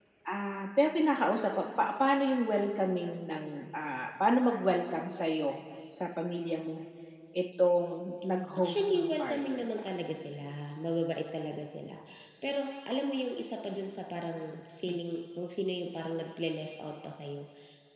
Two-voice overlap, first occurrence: 8.6 s

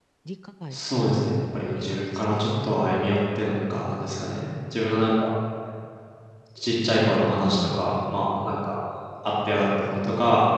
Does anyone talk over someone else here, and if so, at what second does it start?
0.7 s

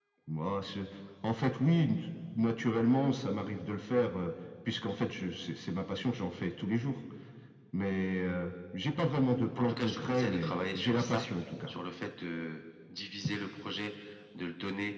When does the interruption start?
9.6 s

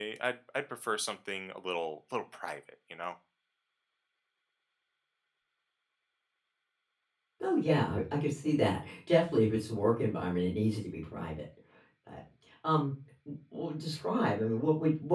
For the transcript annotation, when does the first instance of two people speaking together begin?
none

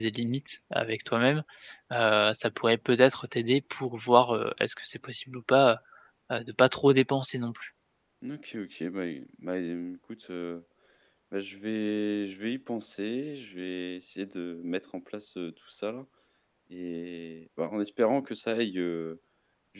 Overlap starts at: none

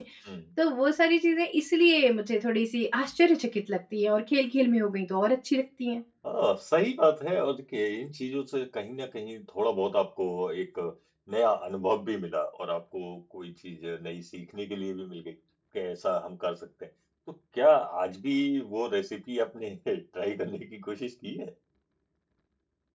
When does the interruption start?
none

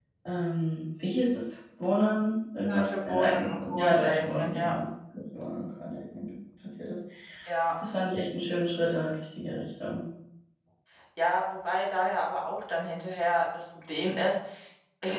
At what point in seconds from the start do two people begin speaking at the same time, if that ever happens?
2.7 s

